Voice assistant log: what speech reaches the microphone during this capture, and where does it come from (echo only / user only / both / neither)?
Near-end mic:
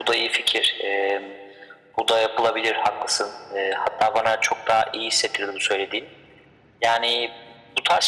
echo only